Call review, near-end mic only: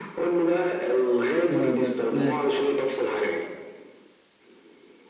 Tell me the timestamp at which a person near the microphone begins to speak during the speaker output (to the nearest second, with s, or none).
1 s